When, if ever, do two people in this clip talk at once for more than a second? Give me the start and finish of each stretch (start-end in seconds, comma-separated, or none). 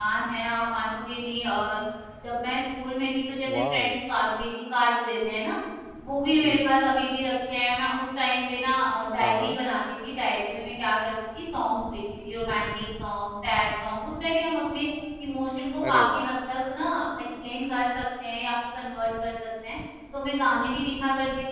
none